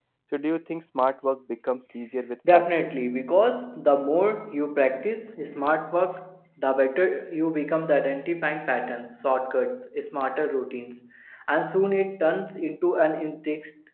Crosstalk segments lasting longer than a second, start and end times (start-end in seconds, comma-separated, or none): none